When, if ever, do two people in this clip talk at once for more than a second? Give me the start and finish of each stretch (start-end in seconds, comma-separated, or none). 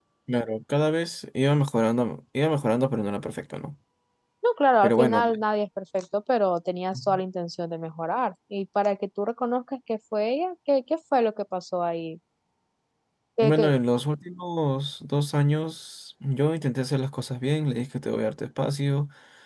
none